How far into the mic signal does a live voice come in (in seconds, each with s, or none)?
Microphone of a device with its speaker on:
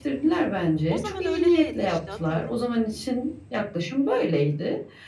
0.9 s